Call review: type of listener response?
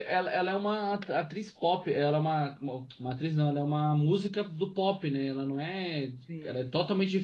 listening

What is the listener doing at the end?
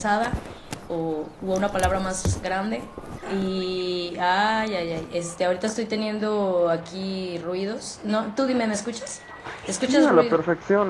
taking over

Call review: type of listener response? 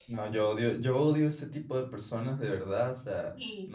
listening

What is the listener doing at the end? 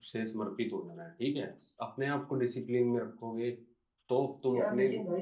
taking over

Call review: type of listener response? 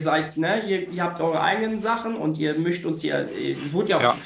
taking over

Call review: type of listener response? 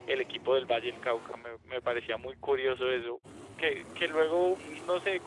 listening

